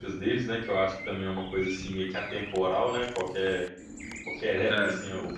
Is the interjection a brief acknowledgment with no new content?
Yes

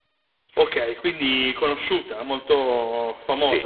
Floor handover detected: Yes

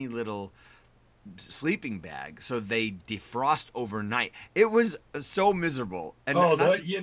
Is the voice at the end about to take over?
Yes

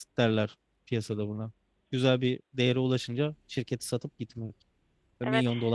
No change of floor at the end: No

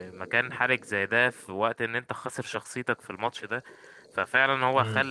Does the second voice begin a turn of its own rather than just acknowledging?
No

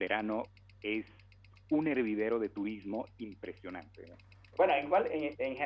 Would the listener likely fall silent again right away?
No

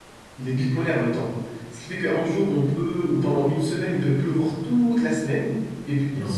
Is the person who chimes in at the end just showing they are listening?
Yes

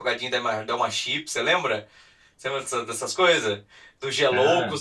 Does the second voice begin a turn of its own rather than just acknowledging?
No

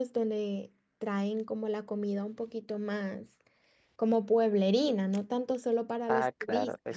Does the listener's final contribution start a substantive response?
Yes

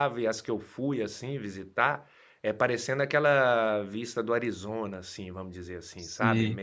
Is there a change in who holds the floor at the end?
No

